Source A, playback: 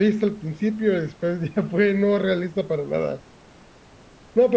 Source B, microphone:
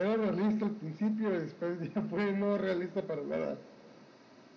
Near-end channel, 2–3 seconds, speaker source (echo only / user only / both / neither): echo only